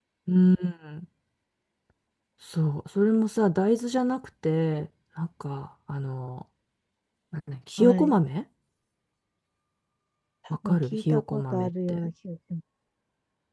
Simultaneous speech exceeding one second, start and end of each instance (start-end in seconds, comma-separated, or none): 10.7-12.1